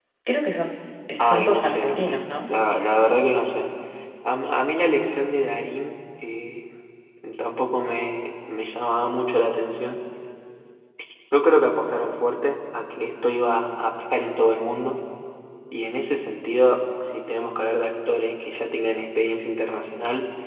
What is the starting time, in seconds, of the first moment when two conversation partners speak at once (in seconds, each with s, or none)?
1.3 s